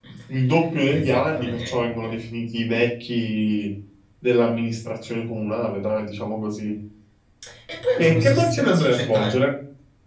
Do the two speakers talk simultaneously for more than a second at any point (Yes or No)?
Yes